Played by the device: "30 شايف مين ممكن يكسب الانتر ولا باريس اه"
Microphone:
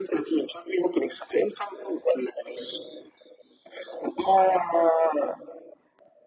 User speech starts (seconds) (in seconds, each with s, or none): none